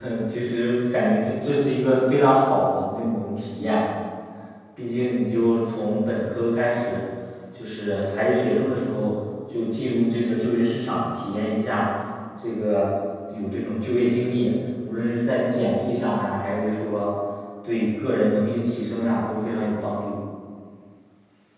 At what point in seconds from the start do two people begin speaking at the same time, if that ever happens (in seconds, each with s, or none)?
none